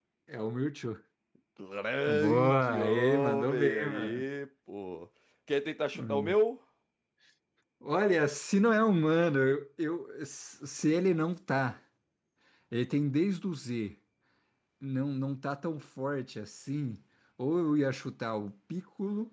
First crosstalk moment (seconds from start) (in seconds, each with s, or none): 2.1 s